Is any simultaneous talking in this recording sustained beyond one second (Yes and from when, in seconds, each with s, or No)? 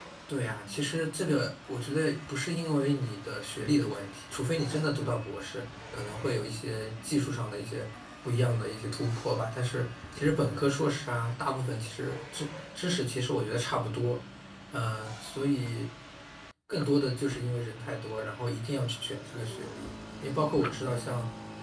No